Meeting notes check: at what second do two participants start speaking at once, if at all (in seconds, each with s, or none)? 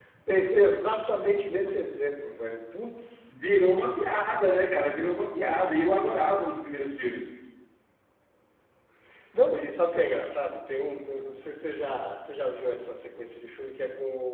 none